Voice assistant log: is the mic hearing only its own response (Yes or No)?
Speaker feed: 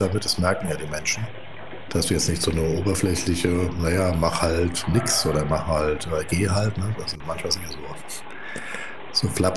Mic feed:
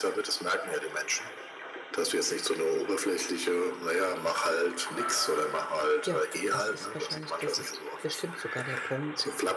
No